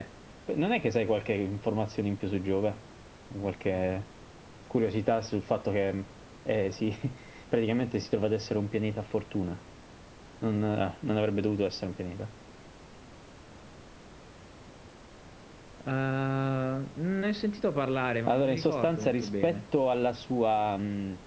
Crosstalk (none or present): present